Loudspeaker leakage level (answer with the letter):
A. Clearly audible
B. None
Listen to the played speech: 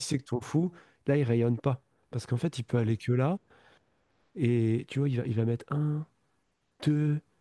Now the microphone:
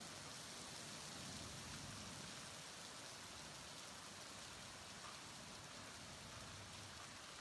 B